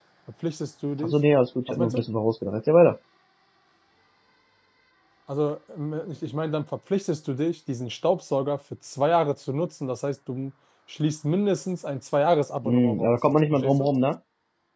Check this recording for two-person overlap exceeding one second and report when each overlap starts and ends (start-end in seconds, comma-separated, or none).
12.6-13.9